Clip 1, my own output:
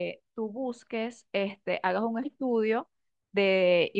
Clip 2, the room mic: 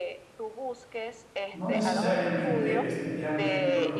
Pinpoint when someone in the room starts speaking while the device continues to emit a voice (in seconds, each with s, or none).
1.5 s